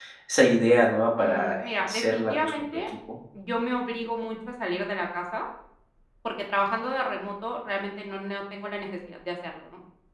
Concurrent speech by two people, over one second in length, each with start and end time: 1.2-2.7

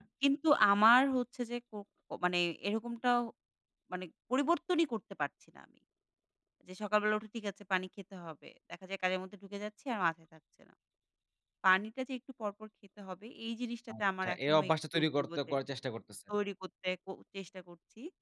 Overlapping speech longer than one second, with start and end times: 14.0-15.5

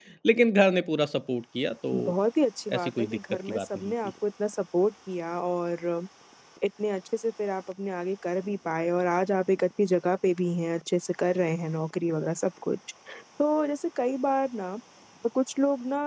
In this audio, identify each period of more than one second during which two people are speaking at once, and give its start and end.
2.7-4.1

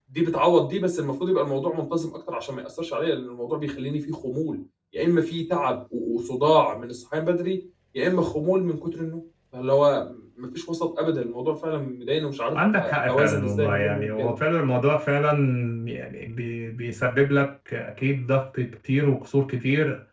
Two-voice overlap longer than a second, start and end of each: 12.5-14.3

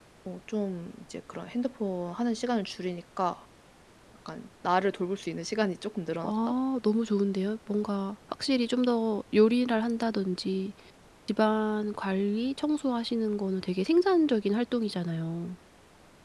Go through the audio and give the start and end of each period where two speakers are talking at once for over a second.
none

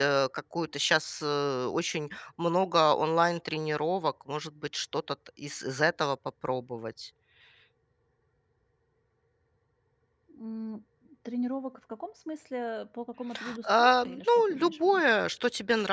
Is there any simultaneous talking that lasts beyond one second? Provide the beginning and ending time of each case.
13.7-15.0

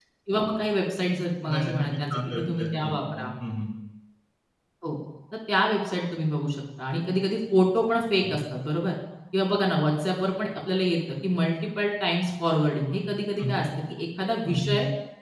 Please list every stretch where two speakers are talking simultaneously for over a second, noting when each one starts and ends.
1.5-3.3

